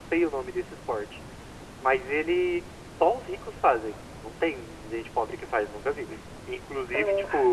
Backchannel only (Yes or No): Yes